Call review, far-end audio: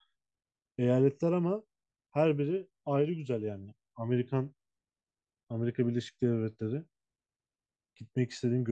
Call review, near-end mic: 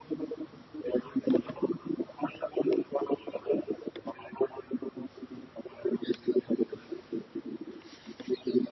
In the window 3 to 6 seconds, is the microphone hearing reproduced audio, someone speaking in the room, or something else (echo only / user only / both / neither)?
echo only